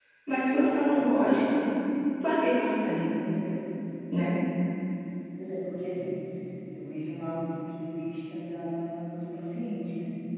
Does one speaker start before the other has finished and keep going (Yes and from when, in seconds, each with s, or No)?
No